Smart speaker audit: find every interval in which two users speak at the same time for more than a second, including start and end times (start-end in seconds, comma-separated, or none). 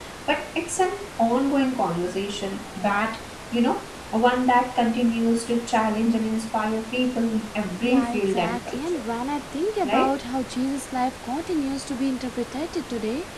7.8-9.0